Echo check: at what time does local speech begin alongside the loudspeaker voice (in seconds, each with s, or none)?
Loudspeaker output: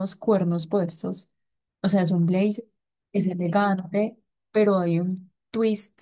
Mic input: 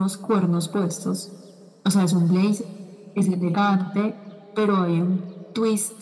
none